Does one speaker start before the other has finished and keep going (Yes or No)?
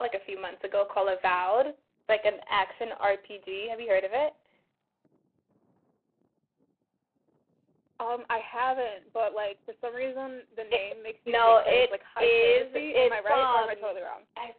Yes